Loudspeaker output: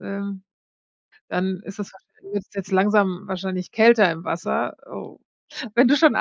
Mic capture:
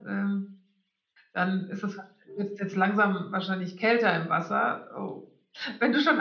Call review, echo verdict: present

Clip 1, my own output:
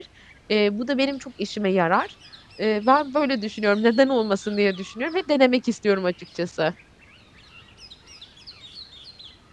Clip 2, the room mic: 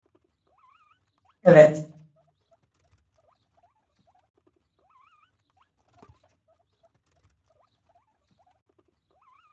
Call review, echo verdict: none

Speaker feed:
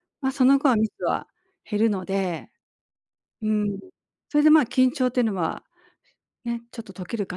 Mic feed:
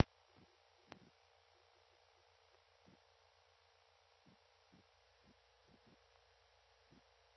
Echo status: none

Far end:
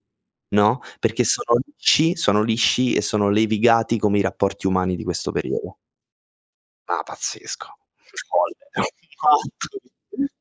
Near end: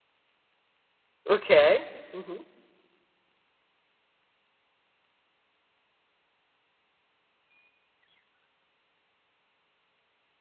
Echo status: none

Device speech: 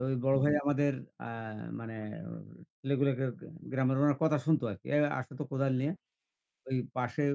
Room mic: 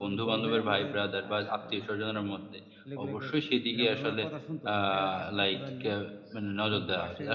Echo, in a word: present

